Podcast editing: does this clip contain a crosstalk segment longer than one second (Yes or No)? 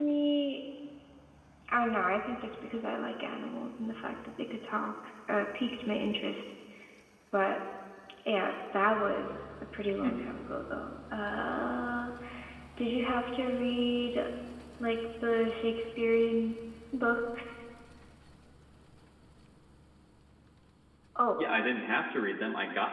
No